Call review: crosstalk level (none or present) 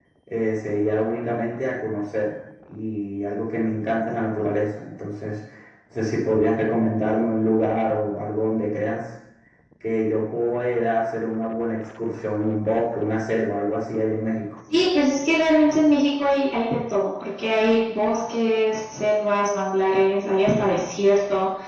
none